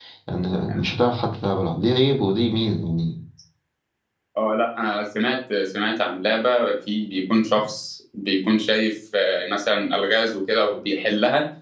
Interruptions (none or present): none